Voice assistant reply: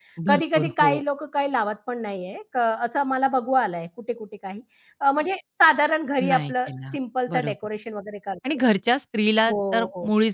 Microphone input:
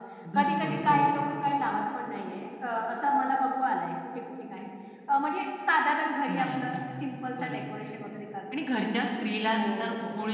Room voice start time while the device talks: none

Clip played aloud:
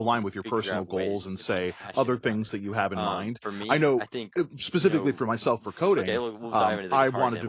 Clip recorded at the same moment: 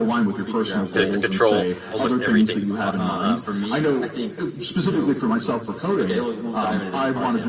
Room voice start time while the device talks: 1 s

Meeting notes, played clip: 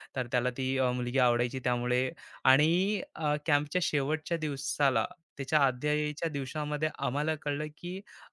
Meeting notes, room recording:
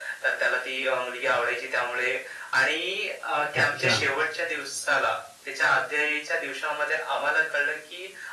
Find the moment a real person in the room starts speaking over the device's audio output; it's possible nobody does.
4 s

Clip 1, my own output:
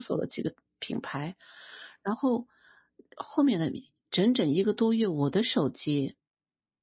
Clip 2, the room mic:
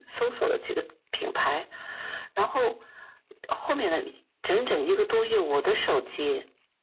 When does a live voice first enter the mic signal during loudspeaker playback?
none

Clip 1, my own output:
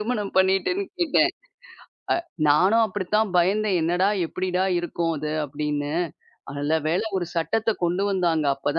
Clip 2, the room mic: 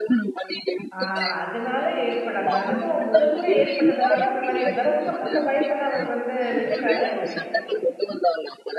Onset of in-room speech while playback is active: 1 s

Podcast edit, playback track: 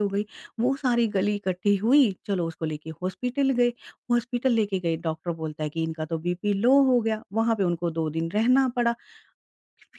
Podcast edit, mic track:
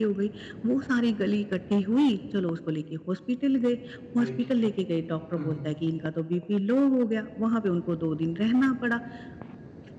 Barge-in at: 4 s

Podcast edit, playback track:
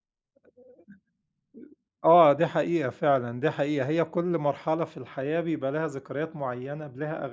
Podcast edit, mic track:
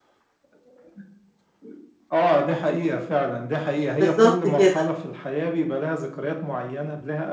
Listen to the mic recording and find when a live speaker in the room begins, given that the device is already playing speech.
4 s

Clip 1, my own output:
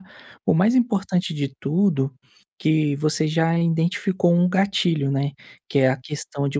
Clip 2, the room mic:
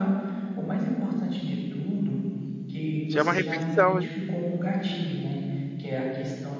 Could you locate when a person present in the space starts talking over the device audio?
3 s

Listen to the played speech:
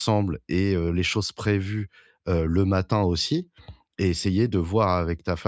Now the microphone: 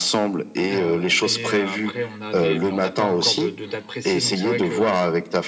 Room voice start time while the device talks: 1 s

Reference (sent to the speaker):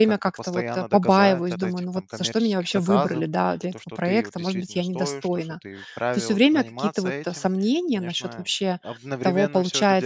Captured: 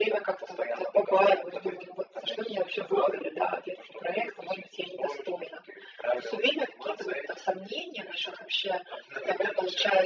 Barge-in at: none

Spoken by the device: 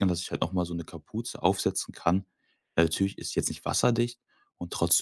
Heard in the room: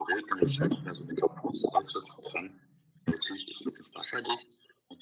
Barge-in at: 0 s

